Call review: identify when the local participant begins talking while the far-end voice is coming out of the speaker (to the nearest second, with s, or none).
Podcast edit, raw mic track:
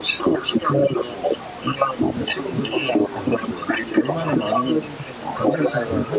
2 s